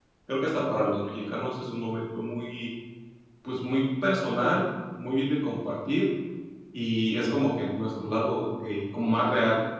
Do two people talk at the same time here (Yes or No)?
No